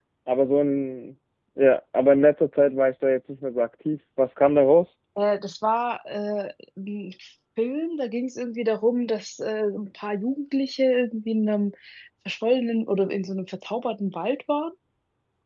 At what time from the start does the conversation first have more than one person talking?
none

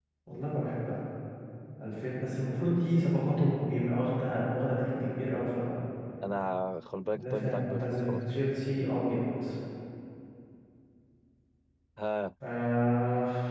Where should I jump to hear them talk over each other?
7.2 s

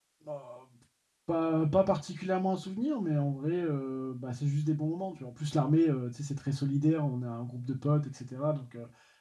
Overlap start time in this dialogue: none

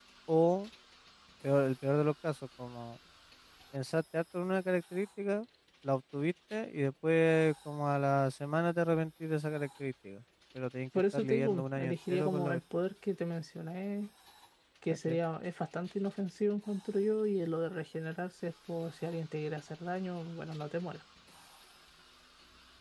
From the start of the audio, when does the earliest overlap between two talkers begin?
11.1 s

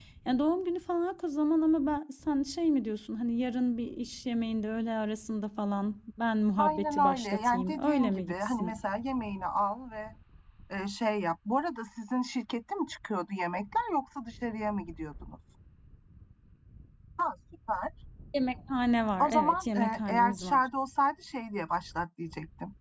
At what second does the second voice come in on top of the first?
6.6 s

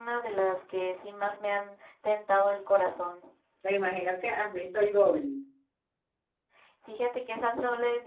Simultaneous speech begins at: none

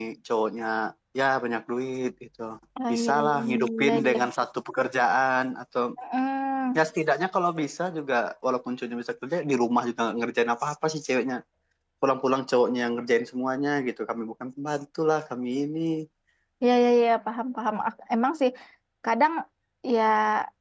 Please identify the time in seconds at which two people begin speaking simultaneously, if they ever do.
2.9 s

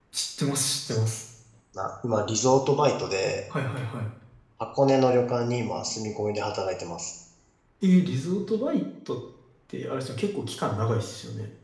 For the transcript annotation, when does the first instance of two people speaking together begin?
none

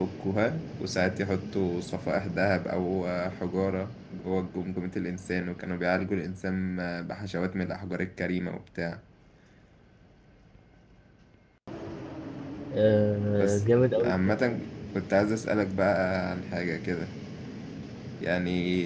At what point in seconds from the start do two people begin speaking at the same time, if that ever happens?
13.4 s

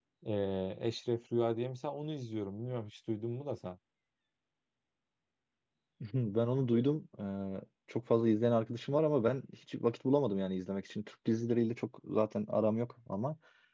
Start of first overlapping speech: none

